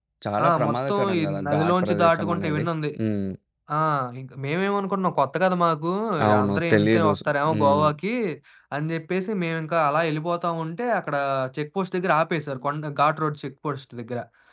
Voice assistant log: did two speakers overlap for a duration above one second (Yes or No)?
Yes